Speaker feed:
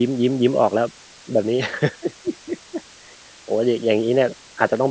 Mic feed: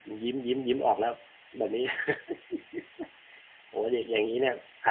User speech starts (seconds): none

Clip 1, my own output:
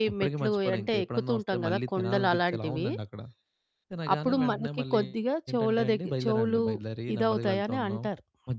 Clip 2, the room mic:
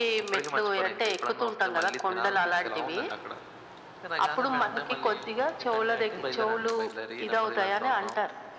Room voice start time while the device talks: none

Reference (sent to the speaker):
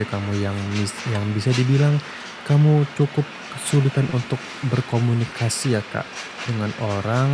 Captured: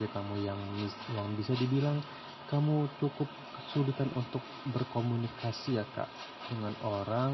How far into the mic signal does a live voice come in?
none

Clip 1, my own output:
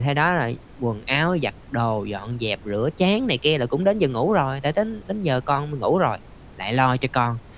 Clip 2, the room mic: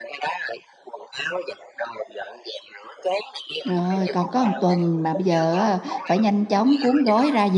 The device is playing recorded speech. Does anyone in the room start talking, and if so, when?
3.7 s

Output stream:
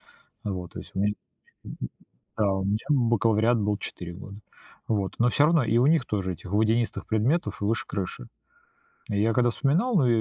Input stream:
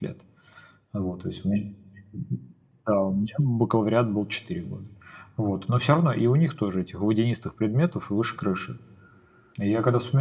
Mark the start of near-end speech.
none

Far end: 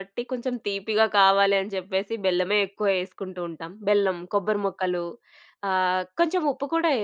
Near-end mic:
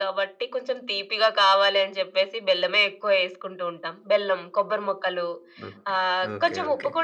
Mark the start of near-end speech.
5.6 s

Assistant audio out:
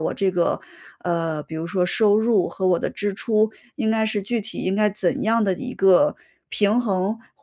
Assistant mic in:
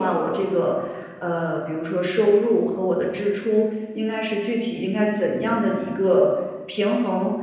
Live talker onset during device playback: none

